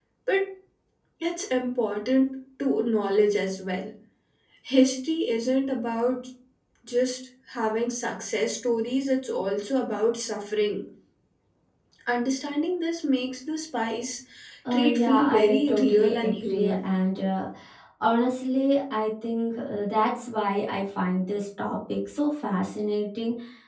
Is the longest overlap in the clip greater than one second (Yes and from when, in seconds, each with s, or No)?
Yes, from 14.7 s